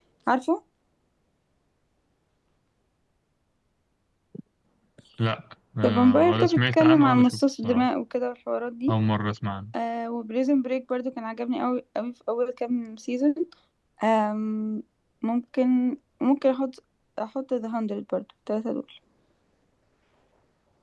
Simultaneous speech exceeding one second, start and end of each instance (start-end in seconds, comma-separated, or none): 5.8-7.9